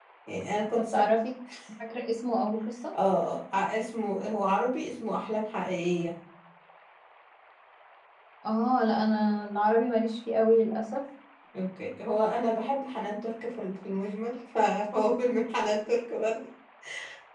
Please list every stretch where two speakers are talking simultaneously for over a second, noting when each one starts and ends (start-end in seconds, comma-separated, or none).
none